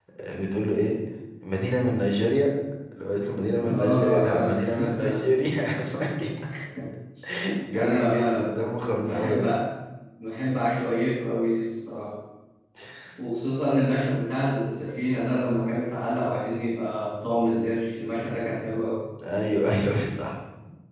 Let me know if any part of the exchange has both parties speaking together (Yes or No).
Yes